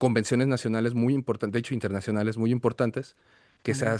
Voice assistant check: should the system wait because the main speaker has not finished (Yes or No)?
Yes